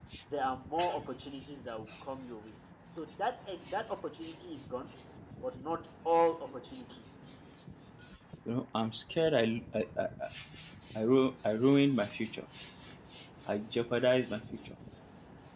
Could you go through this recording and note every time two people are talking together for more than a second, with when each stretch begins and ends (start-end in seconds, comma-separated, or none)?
none